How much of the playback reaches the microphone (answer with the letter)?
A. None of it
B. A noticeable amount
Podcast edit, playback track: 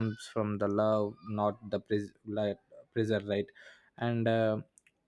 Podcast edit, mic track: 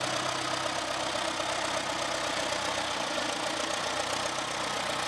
A